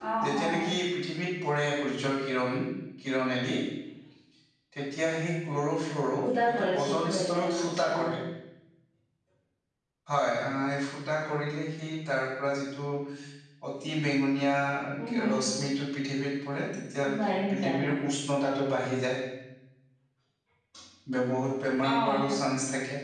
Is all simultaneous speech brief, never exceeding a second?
No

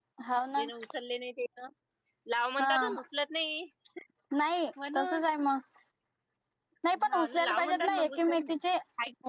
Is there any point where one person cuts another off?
Yes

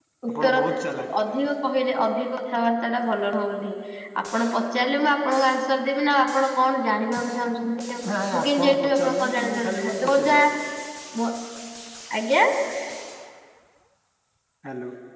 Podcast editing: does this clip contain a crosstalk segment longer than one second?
Yes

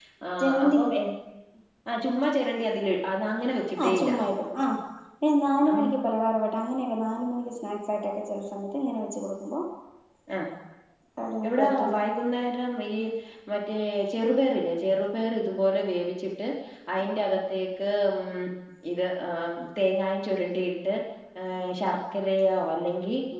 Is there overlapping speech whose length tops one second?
No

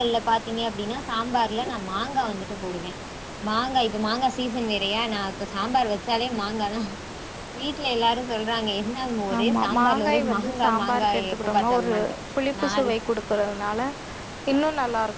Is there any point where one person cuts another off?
Yes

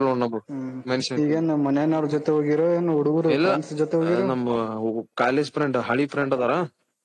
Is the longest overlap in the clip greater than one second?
No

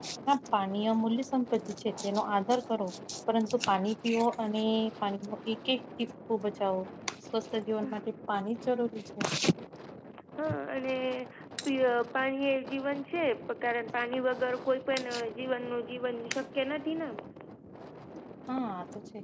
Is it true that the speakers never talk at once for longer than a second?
Yes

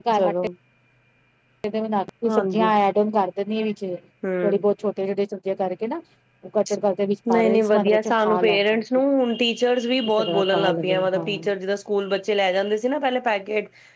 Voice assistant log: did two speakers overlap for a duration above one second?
Yes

